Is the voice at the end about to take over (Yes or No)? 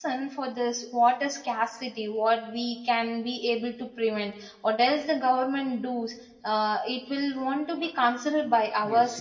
Yes